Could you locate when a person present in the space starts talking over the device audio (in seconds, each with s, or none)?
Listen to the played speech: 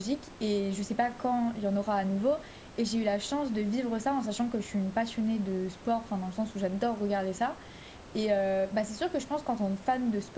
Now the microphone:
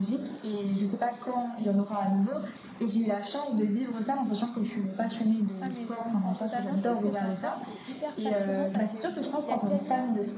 5.6 s